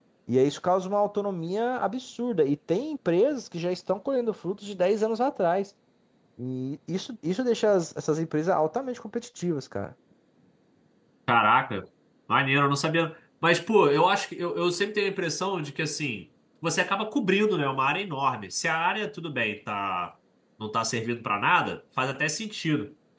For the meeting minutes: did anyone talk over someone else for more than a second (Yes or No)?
No